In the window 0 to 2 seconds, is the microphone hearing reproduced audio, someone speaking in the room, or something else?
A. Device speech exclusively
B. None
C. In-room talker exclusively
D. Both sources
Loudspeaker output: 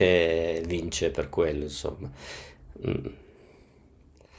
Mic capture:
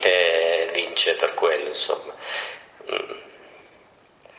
A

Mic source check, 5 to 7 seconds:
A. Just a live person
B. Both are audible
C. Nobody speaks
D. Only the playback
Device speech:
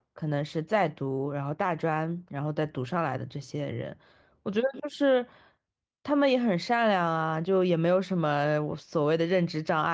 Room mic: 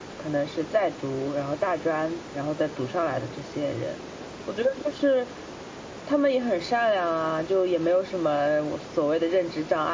D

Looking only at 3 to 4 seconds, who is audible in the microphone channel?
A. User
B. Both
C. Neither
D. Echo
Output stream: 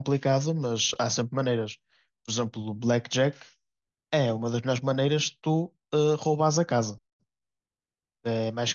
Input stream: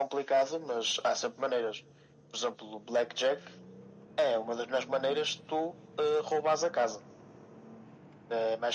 D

